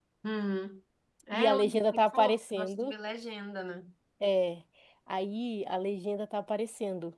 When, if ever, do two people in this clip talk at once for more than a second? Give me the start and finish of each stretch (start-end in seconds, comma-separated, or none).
1.3-2.9